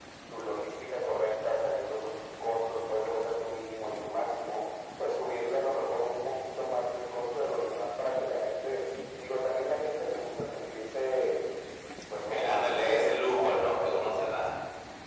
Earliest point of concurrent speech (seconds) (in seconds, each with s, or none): 12.3 s